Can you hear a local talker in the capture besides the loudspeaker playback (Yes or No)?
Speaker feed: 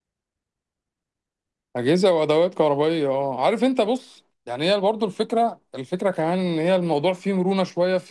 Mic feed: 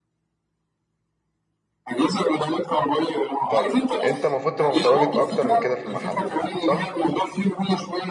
Yes